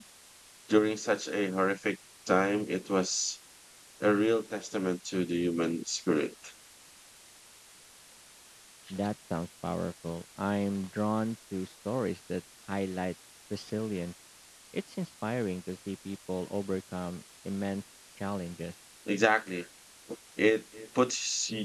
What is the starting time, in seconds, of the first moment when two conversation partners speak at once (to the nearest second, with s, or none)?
none